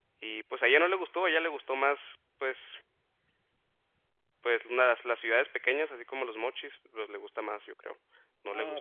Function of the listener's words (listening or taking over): taking over